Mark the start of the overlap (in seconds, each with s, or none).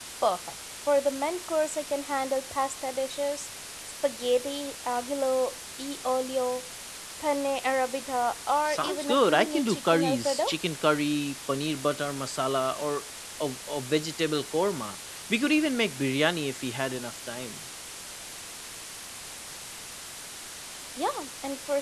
8.7 s